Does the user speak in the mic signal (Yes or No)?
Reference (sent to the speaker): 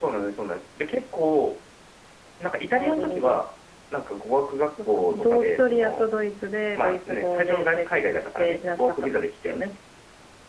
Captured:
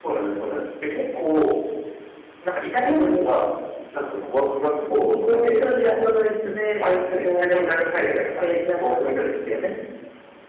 No